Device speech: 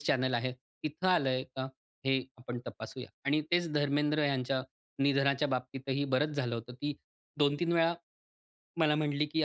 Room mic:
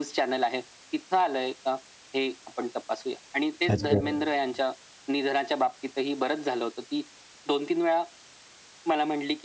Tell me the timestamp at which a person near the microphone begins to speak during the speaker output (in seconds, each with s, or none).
3.7 s